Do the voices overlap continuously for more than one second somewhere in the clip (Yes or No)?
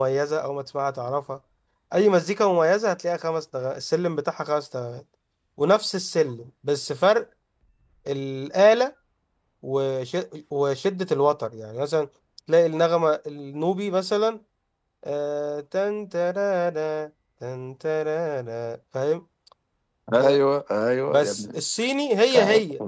No